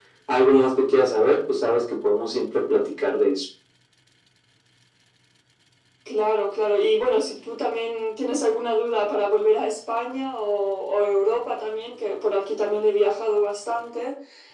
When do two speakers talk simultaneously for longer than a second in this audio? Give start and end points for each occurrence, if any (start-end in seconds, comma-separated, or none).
none